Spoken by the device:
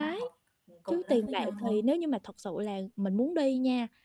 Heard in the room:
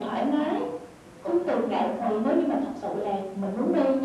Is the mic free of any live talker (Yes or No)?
Yes